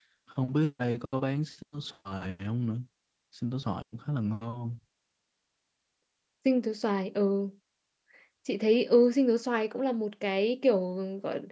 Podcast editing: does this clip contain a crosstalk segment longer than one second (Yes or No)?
No